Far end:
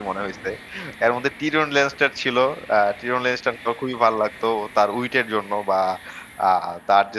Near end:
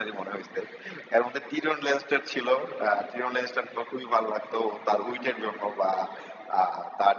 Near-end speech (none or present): none